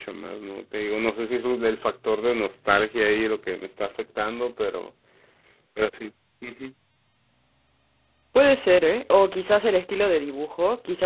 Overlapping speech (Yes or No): No